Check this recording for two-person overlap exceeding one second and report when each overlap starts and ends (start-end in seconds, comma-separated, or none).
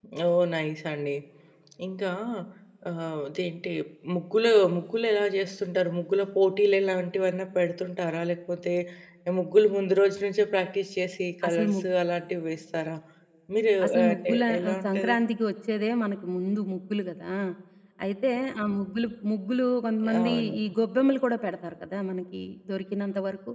13.8-15.2